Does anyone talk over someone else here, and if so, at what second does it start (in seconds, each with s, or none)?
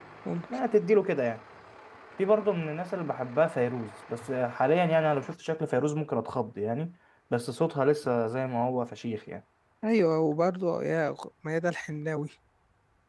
none